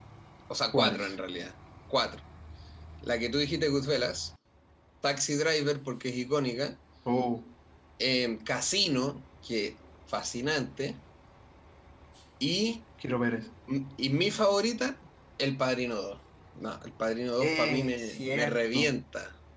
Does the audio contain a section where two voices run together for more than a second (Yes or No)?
Yes